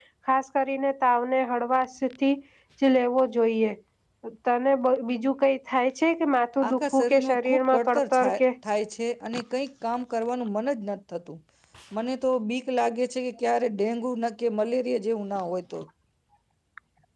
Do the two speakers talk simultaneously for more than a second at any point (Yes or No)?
Yes